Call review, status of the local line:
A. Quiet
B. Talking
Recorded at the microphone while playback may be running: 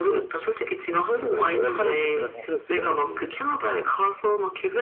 B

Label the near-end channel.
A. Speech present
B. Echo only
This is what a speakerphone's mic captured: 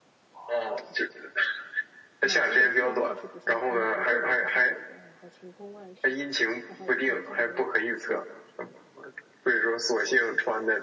A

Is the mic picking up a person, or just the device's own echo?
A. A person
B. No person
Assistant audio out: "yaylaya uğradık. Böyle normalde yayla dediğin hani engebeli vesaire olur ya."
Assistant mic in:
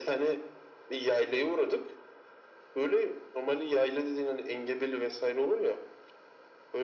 B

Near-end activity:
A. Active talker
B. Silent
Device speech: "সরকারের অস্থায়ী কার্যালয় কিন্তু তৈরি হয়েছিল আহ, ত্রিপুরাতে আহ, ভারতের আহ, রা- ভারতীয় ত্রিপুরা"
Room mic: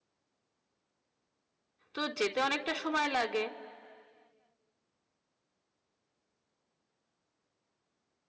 A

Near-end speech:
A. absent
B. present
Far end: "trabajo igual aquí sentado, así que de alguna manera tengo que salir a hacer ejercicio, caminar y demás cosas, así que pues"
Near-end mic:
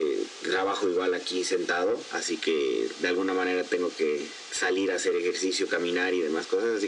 A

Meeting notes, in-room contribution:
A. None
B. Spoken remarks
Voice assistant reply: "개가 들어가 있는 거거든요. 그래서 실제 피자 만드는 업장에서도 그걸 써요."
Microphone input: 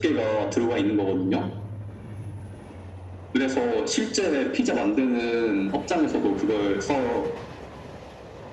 A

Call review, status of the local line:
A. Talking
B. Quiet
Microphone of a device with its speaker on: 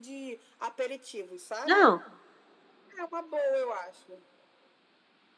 A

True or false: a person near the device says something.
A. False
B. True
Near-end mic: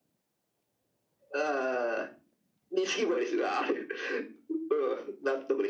A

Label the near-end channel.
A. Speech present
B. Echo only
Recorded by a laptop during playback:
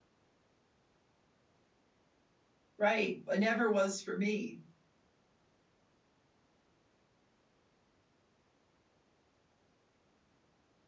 A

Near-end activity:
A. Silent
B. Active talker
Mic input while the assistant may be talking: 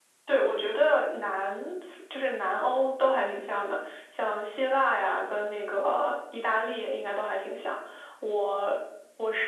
A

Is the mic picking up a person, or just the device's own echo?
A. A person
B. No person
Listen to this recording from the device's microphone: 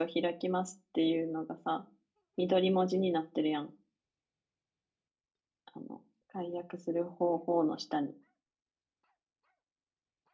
A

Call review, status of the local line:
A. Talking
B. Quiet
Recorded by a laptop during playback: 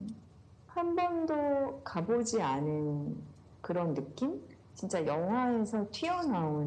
B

